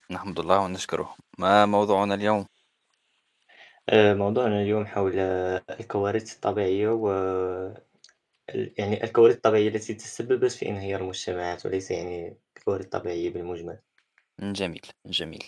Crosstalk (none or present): none